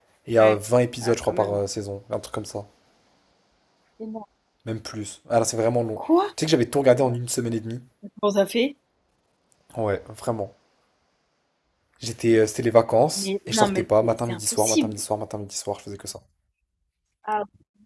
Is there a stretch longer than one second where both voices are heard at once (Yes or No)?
Yes